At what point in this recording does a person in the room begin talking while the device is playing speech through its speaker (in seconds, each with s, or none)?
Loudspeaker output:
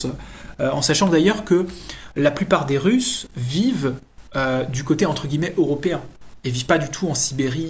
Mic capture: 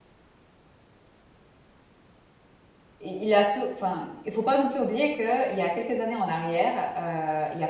3.0 s